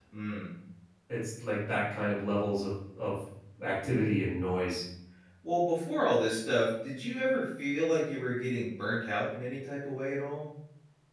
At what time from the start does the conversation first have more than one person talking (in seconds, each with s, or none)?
none